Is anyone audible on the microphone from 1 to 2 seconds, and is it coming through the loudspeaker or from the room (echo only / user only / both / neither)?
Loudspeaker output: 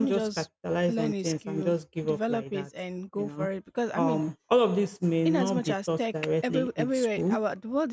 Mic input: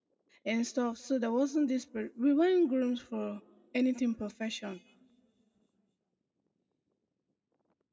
user only